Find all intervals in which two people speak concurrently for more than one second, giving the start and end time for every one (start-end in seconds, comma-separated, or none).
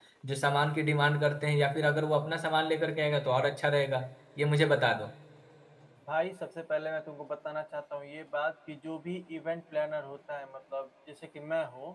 none